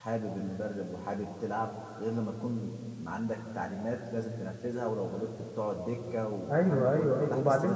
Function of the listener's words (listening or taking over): taking over